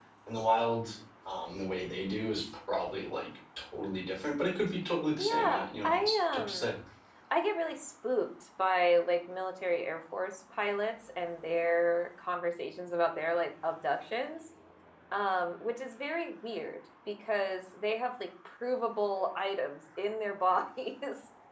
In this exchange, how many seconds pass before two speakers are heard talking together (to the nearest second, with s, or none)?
5 s